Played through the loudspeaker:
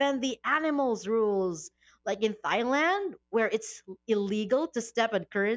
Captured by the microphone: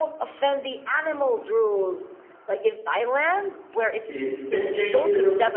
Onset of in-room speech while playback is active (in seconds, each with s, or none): 4.0 s